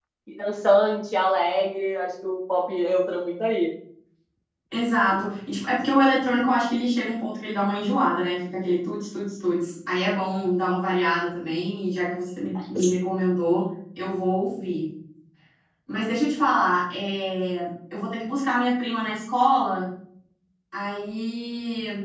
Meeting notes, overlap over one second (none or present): none